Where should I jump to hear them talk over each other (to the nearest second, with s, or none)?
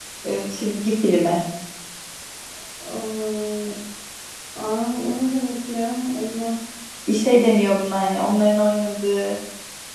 none